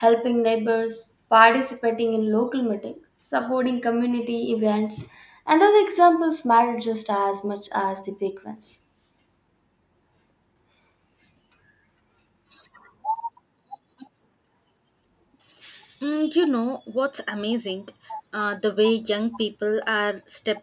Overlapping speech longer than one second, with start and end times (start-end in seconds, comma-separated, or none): none